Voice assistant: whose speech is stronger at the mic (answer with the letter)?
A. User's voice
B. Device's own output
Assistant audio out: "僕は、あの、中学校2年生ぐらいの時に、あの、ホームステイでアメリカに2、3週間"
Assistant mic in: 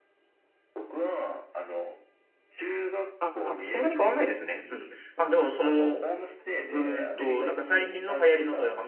A